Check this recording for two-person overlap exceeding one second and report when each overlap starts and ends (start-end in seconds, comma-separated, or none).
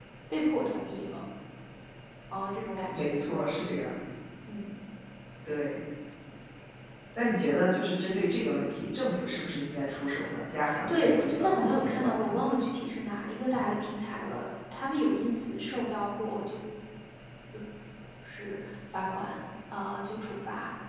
10.9-12.4